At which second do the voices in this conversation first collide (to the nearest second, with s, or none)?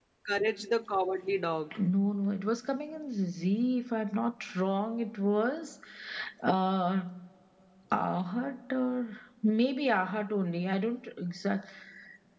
none